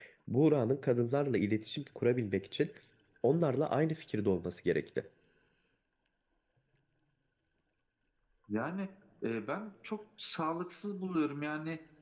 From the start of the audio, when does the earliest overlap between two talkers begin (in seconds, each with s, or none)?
none